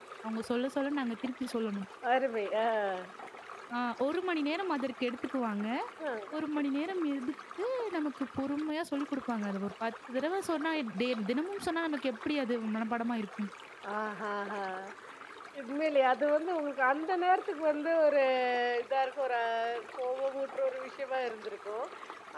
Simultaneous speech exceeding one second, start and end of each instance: none

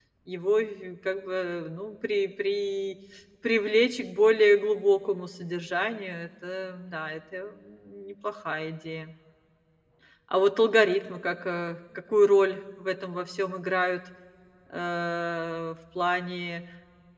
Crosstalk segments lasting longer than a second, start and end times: none

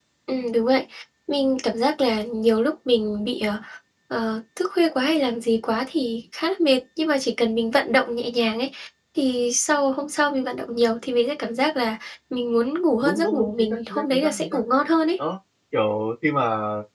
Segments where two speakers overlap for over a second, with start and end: 13.0-14.6

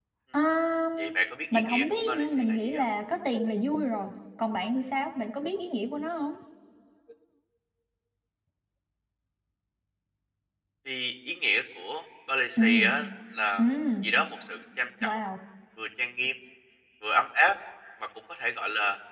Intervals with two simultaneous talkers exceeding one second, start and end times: 1.5-2.8

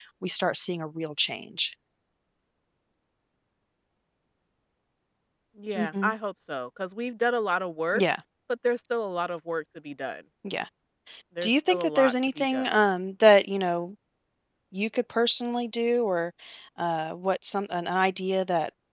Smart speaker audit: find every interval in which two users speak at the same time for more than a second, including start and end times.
11.4-12.8

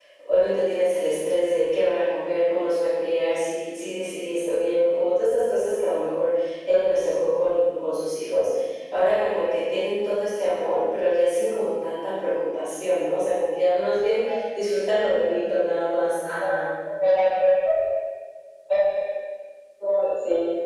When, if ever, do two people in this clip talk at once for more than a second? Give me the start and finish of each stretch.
none

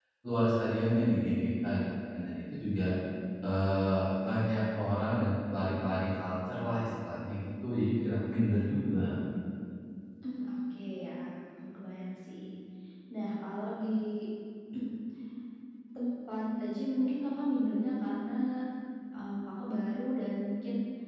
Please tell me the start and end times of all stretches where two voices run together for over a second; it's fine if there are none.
none

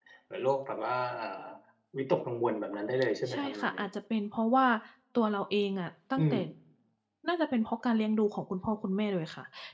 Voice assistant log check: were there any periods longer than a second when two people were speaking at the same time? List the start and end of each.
none

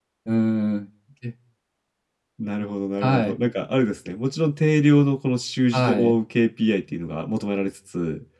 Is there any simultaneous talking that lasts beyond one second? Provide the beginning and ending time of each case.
none

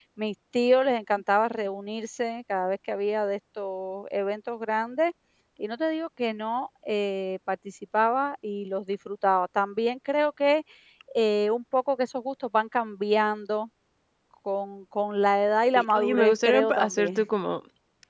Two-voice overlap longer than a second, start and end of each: 15.8-17.2

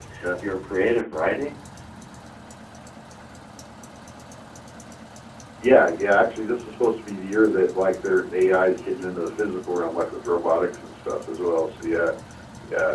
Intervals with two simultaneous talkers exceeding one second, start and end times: none

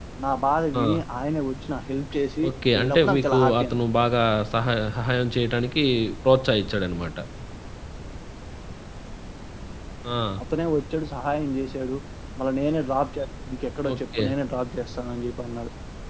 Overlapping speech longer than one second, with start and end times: 2.5-3.8

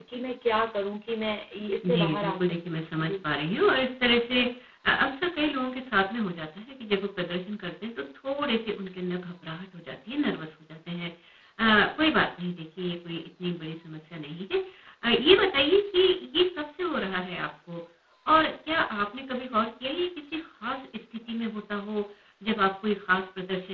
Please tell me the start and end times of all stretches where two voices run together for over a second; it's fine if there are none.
1.8-3.1

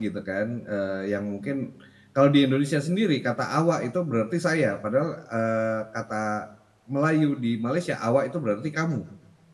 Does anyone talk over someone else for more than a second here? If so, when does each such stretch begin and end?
none

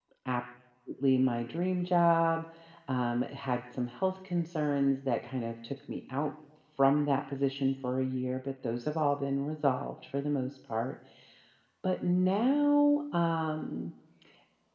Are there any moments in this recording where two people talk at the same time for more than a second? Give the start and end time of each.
none

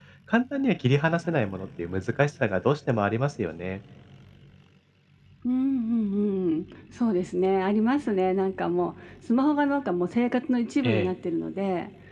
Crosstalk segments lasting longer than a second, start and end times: none

